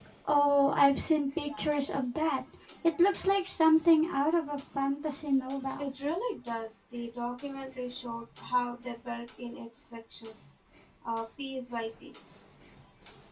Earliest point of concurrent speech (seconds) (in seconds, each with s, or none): none